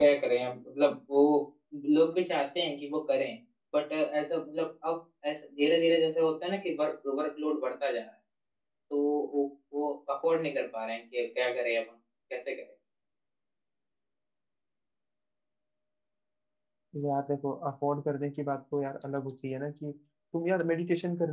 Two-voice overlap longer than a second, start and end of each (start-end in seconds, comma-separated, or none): none